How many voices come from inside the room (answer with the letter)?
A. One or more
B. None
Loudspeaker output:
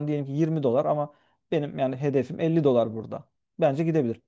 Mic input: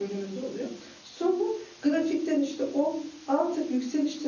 A